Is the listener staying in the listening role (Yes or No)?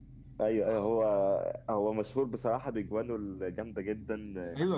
No